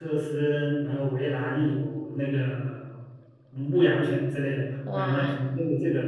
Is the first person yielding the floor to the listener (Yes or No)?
No